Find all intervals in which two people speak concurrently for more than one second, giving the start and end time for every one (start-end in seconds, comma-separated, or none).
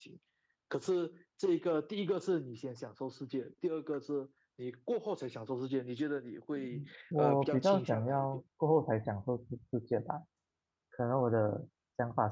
7.2-8.4